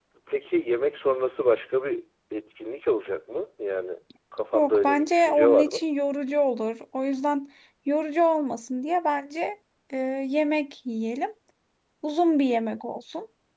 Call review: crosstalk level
present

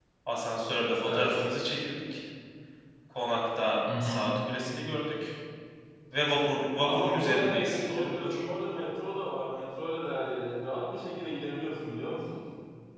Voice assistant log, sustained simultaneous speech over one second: present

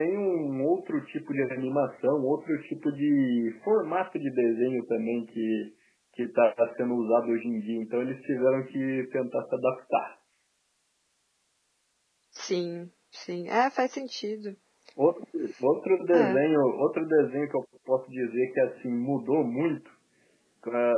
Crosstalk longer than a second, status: none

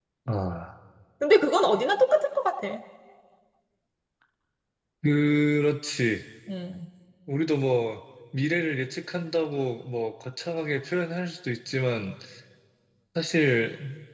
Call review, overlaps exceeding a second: none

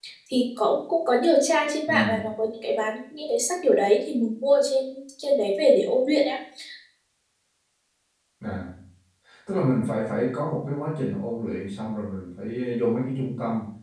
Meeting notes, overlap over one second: none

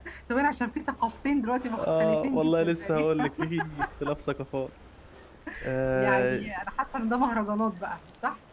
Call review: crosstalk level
present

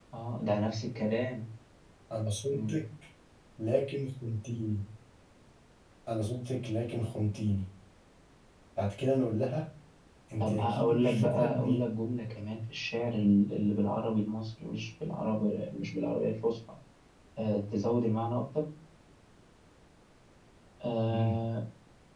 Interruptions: present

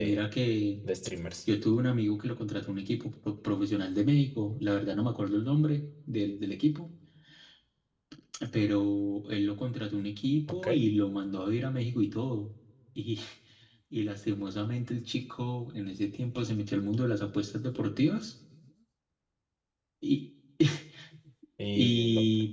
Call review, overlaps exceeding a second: none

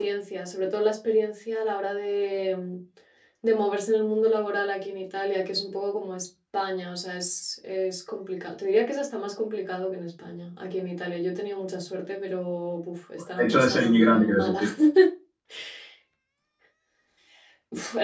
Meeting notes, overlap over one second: present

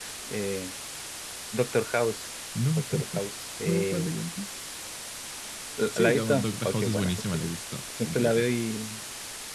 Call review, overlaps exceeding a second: present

